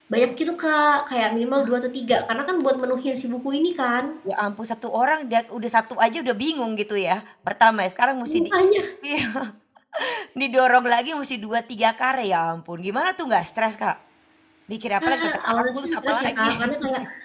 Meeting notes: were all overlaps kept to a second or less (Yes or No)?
No